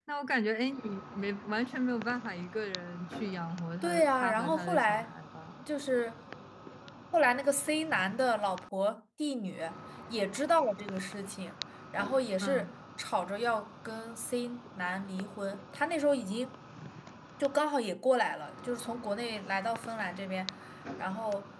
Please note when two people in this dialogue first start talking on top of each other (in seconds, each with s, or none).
3.8 s